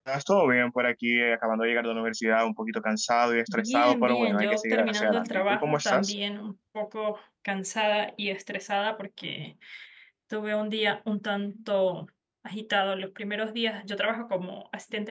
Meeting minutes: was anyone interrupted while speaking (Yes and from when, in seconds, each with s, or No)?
Yes, from 3.5 s